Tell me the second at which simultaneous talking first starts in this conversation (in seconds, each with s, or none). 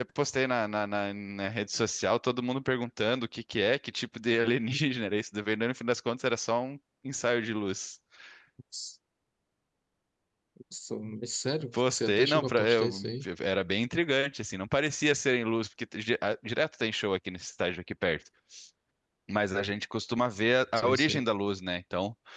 11.7 s